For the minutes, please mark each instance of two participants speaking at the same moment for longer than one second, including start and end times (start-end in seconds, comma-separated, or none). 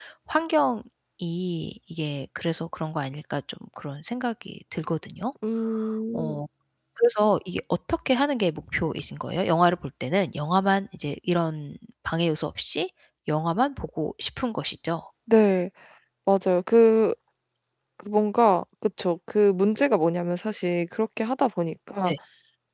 none